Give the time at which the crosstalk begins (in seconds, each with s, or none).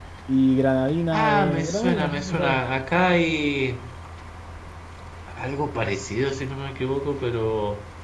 1.1 s